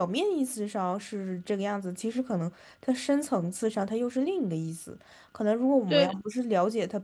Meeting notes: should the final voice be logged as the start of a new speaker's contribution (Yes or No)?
No